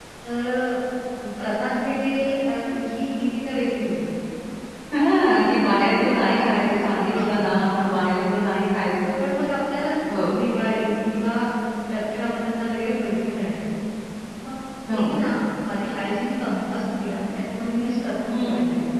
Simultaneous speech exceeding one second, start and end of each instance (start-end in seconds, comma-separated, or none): none